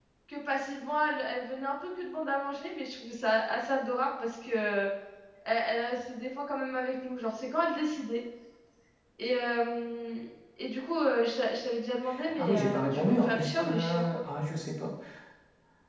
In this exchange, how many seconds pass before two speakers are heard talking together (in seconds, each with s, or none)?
12.4 s